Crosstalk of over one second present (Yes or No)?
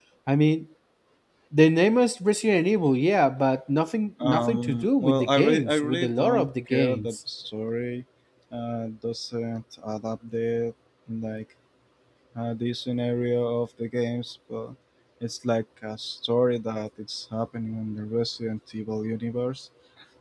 Yes